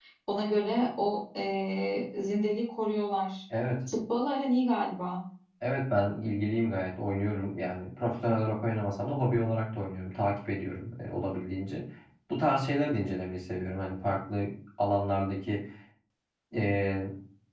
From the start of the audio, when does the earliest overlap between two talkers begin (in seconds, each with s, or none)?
none